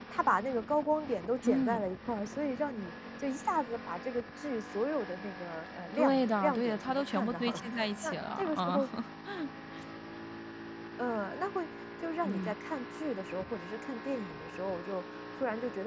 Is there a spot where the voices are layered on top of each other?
Yes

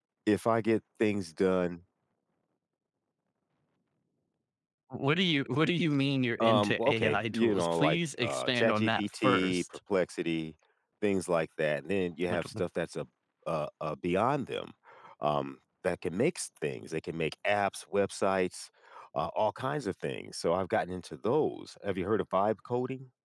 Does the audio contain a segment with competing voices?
Yes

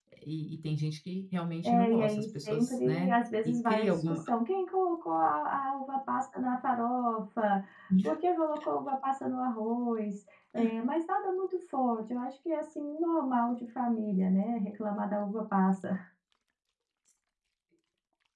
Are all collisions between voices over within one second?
No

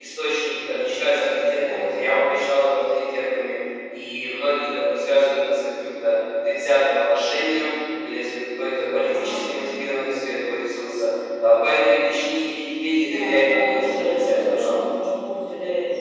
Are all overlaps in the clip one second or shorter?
No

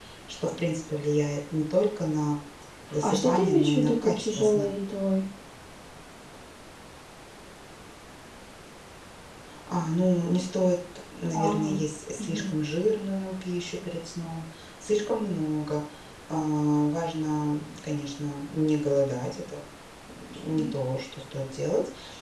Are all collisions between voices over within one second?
No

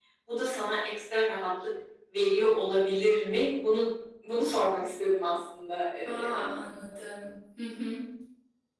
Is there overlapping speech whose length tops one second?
No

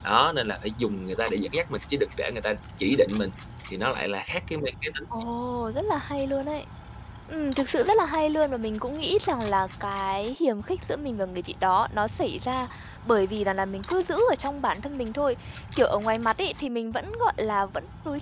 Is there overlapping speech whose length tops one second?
No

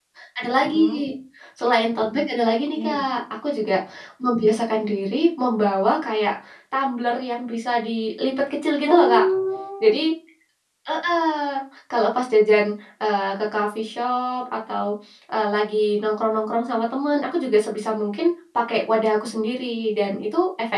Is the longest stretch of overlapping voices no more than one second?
Yes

